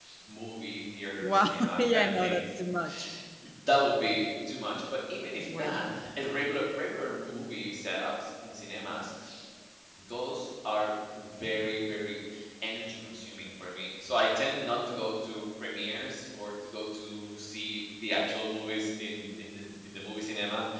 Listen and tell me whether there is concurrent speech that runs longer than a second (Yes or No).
Yes